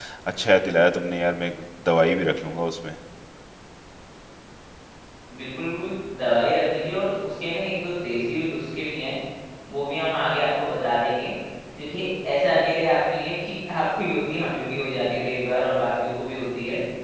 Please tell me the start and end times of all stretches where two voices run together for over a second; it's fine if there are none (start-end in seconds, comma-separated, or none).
none